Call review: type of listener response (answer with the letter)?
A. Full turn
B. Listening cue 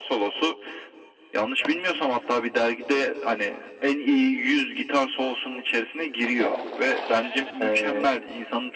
B